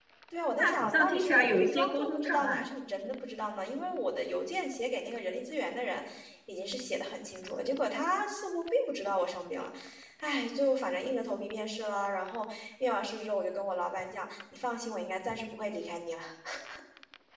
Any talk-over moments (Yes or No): Yes